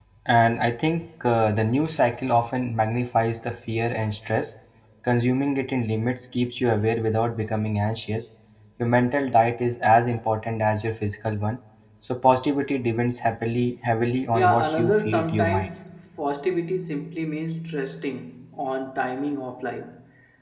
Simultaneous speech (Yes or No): Yes